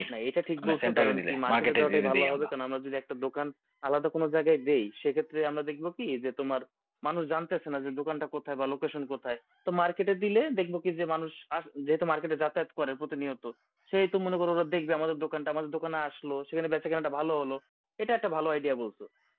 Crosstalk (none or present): present